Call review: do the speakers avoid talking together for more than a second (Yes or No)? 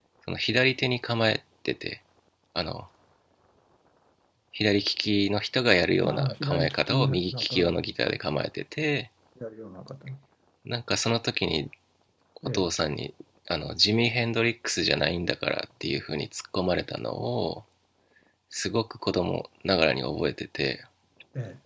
No